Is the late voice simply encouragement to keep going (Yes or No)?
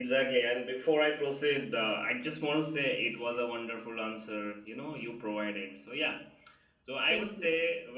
Yes